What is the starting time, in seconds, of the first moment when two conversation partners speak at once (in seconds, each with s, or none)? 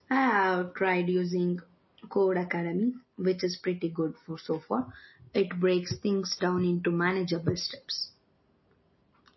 none